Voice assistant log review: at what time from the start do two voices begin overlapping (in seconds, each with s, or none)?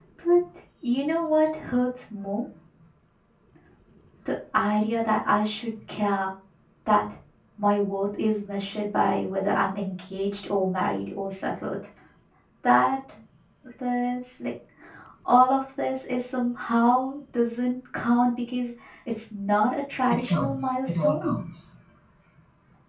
20.1 s